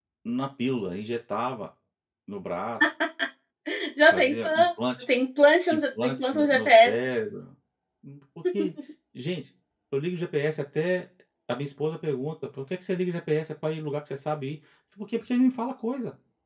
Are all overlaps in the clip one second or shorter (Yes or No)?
No